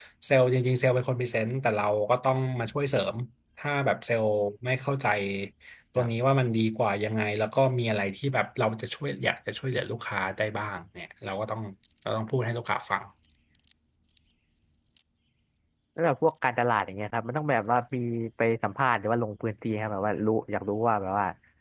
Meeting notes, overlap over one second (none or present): none